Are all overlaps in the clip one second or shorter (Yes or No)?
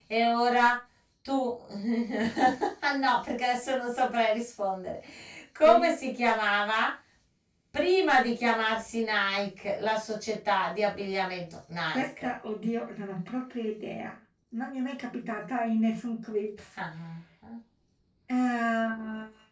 Yes